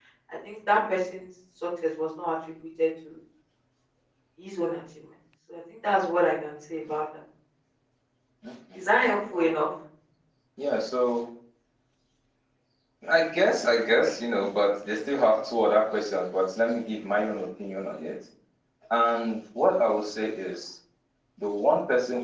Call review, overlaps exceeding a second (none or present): none